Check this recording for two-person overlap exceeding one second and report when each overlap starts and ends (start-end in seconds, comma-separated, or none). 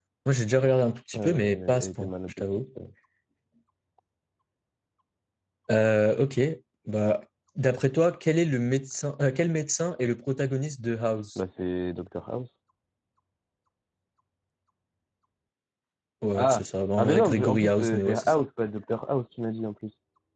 1.1-2.4, 17.0-18.4